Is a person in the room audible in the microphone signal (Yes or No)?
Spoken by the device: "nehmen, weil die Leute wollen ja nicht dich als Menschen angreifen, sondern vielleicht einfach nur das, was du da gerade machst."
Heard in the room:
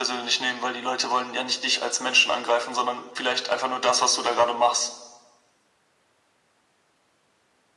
No